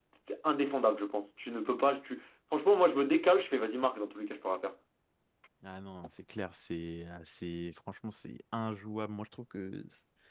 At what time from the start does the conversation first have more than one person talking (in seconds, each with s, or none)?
none